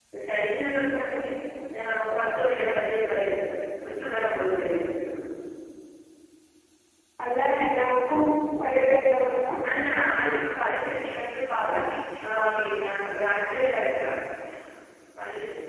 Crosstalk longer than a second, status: none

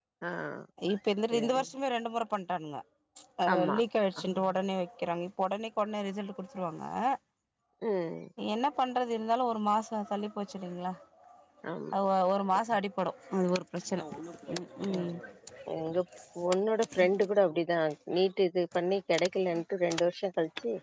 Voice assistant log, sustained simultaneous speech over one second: none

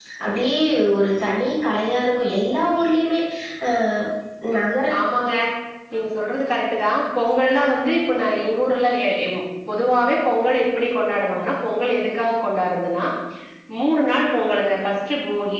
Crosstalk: none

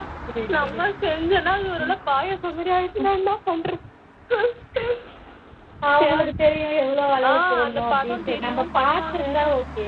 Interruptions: present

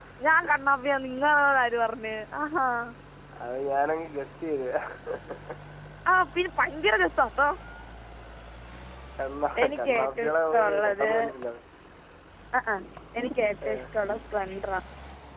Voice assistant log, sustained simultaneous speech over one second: present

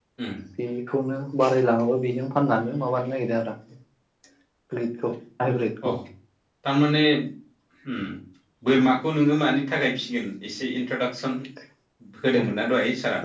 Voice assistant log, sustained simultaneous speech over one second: none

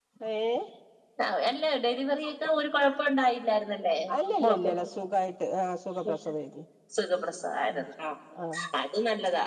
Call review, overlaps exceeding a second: none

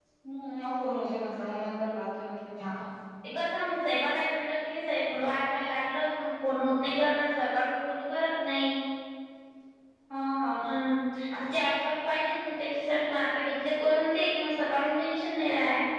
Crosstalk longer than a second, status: none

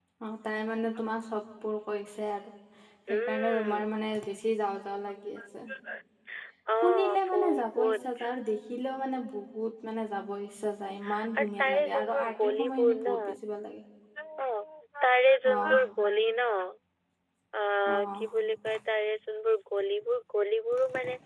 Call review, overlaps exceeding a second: present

